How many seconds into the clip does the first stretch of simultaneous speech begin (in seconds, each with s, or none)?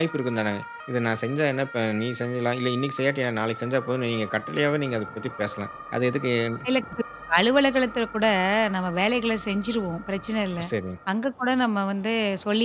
none